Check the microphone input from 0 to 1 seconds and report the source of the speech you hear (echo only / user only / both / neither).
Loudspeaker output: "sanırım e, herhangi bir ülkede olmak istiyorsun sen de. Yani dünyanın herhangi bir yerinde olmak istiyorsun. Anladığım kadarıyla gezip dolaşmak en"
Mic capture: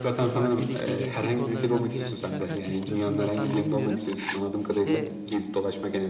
both